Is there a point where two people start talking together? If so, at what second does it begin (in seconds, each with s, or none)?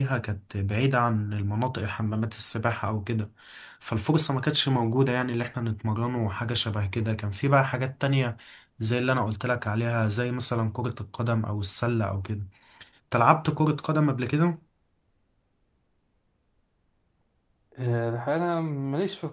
none